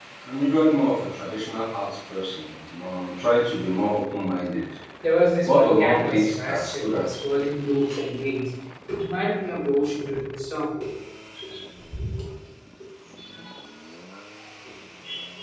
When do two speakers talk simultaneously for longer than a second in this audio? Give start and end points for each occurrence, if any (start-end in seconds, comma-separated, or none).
5.5-7.0